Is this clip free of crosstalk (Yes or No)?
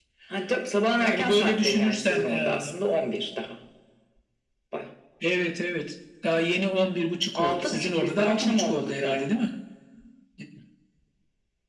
No